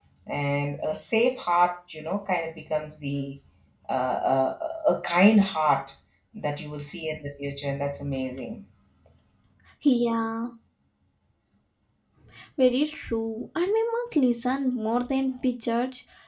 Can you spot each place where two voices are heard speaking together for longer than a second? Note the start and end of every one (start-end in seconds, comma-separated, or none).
none